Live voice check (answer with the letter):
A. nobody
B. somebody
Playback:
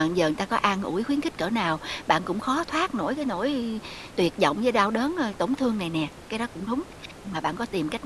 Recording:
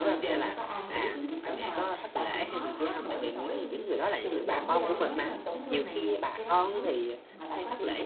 B